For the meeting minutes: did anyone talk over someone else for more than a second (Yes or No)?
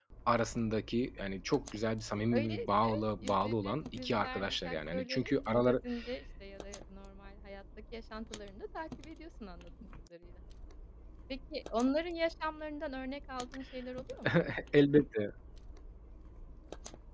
Yes